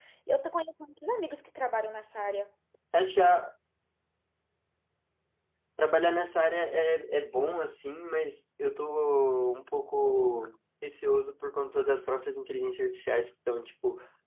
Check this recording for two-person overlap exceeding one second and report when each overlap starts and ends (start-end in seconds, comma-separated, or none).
none